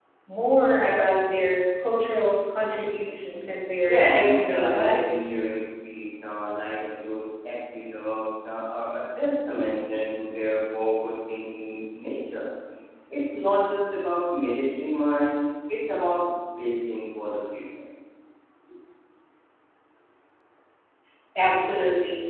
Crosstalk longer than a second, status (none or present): present